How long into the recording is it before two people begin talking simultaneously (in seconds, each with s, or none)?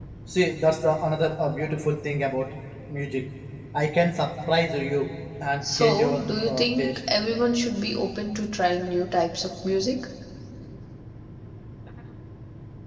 5.6 s